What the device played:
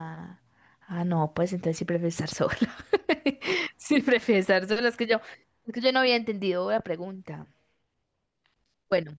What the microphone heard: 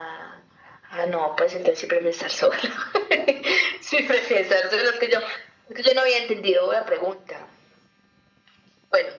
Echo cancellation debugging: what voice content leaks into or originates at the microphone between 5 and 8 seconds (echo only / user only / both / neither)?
echo only